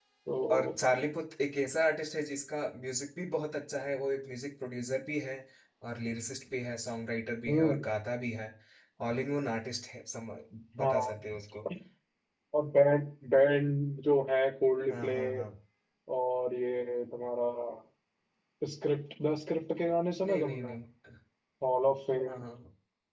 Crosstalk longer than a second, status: none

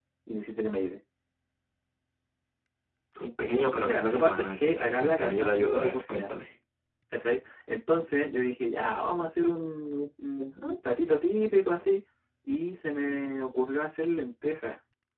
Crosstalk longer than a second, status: present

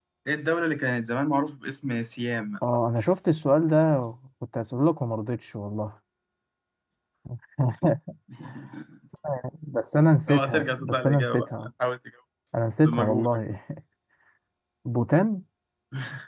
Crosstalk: present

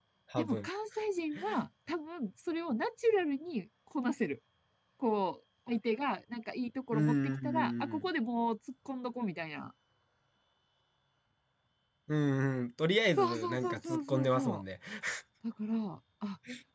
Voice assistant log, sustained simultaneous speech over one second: present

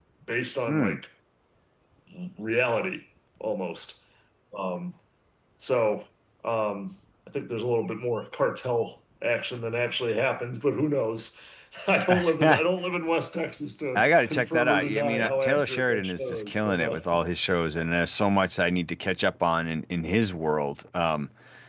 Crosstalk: present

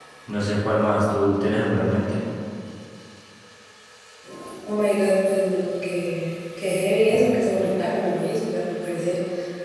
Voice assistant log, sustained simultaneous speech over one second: none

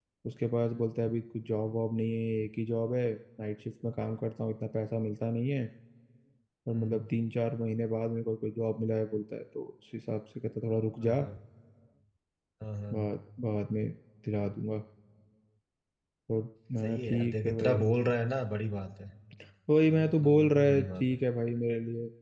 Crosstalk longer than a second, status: present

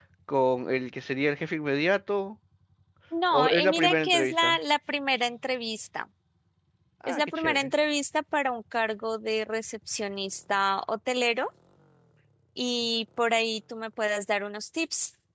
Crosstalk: present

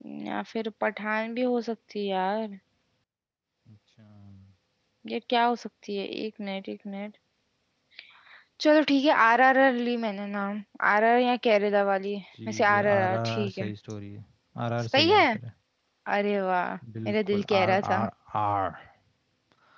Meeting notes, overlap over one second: present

